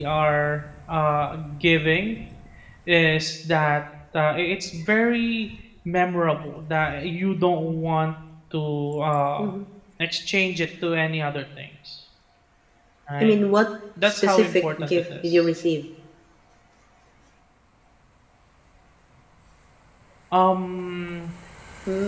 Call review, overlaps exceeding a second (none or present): present